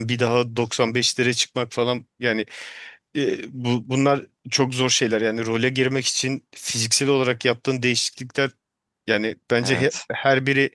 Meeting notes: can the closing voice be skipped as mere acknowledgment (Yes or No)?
Yes